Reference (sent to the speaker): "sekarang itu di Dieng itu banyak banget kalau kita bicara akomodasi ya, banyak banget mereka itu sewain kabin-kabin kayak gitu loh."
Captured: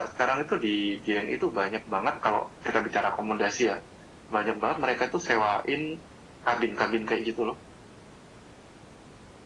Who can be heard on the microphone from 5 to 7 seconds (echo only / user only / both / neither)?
echo only